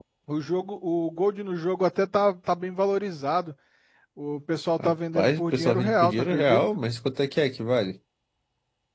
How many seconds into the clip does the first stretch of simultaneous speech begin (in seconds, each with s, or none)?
4.8 s